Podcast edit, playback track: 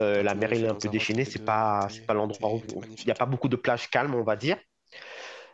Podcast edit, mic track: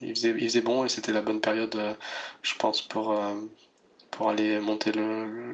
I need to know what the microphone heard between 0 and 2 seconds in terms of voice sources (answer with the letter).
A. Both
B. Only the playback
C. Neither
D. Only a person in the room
D